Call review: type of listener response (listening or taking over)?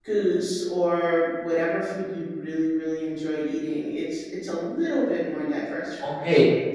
taking over